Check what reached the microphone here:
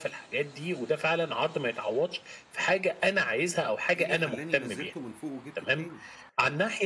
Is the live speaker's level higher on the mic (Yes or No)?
No